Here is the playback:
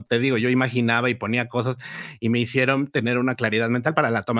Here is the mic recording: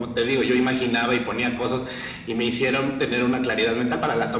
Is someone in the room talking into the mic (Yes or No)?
No